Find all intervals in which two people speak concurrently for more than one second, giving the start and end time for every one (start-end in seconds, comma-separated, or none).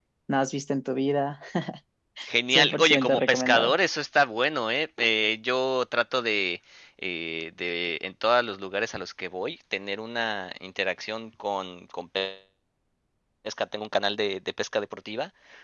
2.5-3.8